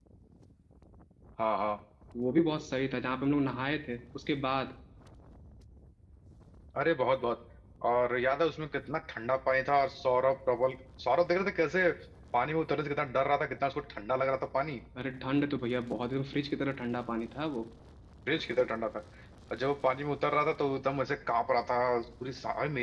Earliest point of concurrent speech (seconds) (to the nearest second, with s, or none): none